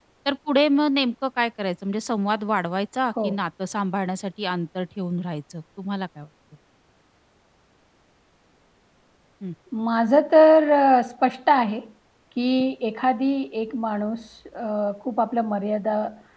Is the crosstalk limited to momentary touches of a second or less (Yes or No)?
Yes